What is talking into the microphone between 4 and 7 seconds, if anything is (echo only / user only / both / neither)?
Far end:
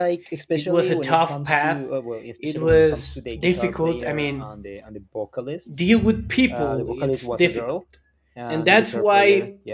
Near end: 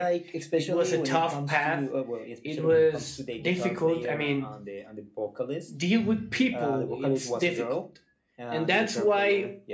echo only